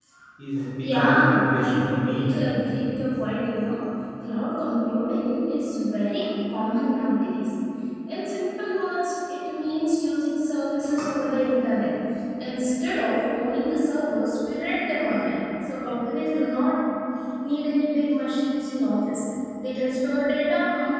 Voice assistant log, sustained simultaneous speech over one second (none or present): present